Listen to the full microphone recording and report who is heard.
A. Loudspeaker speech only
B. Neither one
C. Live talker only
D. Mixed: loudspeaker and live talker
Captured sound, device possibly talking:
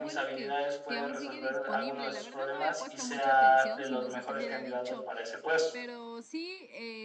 D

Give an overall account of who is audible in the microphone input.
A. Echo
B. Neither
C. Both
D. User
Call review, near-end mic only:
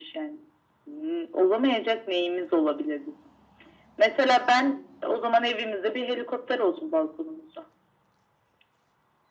A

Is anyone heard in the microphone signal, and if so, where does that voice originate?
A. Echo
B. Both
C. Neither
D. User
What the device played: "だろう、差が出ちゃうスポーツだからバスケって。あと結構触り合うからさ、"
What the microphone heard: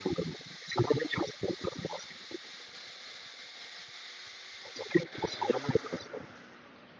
A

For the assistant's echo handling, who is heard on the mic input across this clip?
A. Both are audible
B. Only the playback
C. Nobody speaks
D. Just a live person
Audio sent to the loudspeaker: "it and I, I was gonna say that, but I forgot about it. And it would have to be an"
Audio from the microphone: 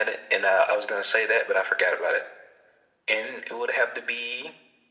B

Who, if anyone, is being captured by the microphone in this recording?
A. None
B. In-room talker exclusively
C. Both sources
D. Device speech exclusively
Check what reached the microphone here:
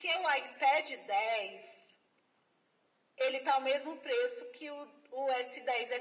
D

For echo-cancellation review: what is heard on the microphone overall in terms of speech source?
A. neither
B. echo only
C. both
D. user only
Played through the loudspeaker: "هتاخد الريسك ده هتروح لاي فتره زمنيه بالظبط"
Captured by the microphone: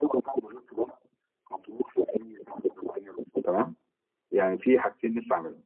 C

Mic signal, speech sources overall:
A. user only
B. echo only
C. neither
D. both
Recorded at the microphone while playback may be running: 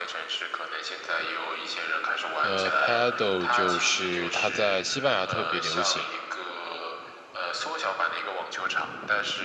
D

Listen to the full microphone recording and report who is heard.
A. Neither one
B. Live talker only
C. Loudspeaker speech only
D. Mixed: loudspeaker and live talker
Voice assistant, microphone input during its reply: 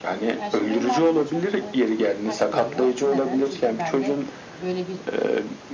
D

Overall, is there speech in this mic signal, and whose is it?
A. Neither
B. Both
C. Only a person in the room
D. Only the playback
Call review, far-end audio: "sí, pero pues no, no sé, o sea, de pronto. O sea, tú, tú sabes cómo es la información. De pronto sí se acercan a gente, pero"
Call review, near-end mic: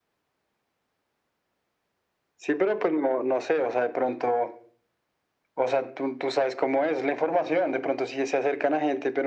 D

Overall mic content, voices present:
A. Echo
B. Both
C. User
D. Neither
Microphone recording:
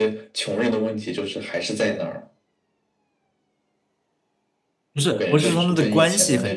B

